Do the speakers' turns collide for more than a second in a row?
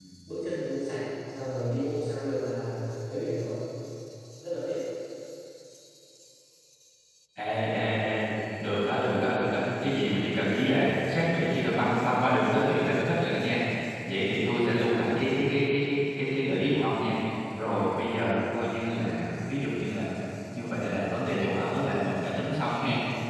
No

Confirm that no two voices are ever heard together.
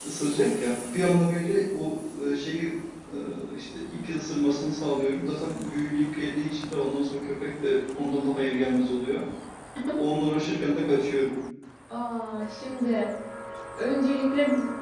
Yes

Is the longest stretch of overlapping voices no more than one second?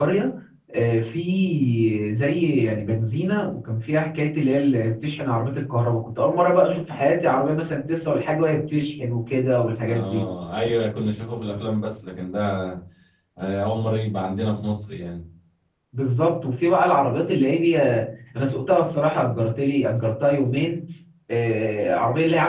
Yes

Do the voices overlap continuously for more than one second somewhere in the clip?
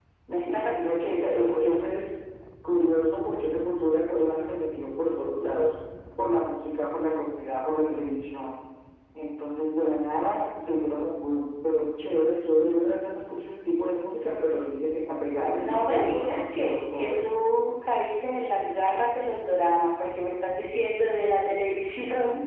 Yes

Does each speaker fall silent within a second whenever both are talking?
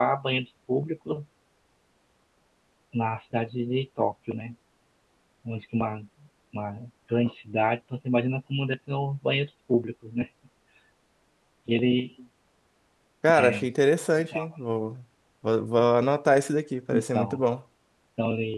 Yes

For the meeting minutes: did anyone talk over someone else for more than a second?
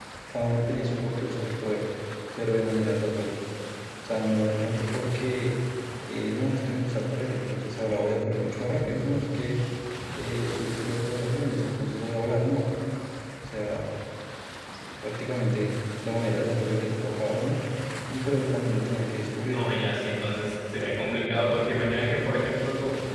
No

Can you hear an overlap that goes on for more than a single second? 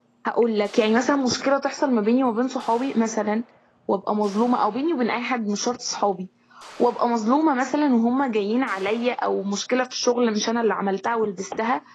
No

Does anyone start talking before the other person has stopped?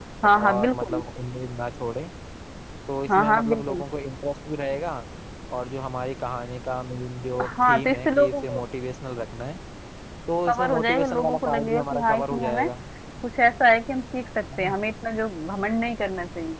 Yes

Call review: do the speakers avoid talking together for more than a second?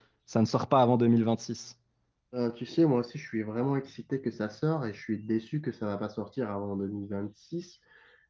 Yes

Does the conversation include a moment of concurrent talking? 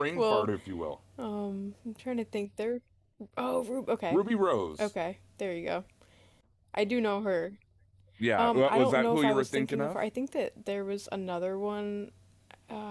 Yes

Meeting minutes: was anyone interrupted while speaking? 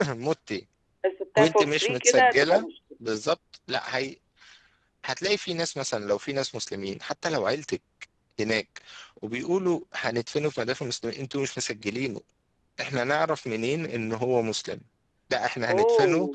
Yes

